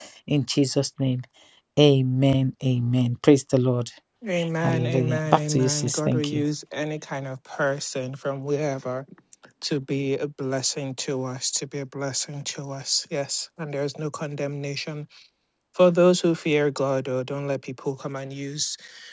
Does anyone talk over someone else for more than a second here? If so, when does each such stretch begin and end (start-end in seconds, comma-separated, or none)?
4.6-6.4